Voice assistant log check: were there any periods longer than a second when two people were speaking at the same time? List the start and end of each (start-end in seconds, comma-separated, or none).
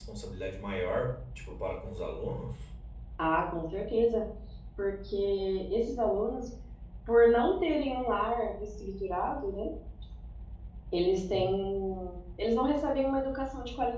none